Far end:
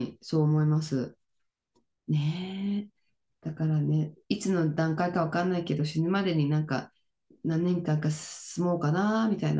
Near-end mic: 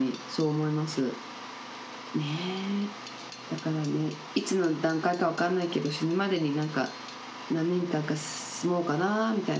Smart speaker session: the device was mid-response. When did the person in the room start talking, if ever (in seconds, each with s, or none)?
none